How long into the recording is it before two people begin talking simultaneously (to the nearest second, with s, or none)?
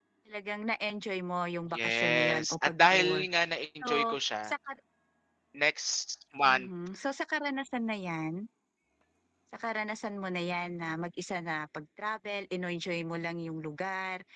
2 s